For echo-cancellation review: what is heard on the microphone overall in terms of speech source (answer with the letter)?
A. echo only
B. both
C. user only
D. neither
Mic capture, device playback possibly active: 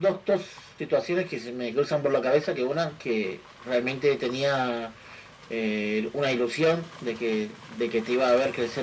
A